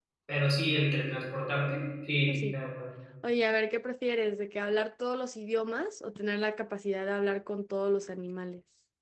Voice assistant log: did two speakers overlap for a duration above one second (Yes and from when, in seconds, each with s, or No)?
No